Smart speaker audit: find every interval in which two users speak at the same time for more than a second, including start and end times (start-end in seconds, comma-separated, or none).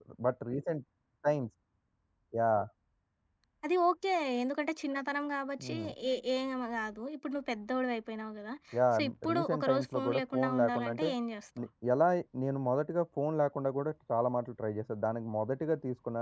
8.9-11.1